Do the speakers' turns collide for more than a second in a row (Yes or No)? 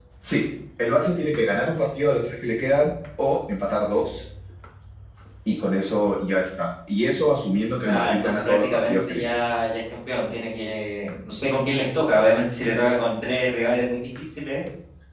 Yes